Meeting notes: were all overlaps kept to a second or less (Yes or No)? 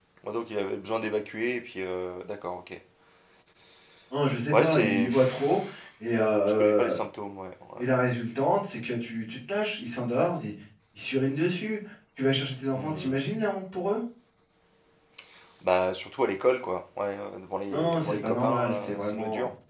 No